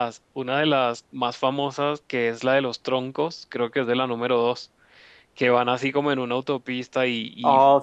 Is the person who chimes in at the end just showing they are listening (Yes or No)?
Yes